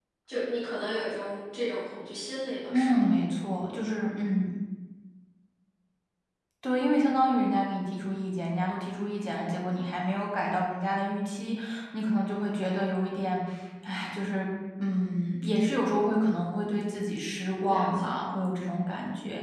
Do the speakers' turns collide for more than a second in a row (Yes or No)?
No